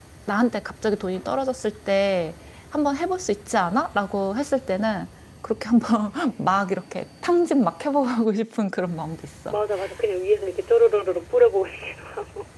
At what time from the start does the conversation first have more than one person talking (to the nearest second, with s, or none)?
none